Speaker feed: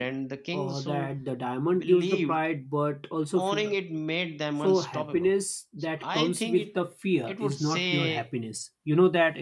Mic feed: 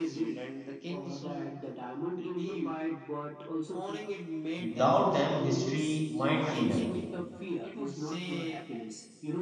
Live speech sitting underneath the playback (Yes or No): No